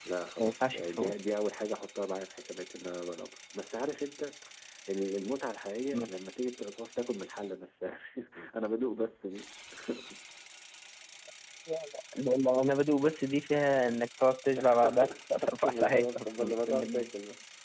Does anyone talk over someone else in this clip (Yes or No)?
Yes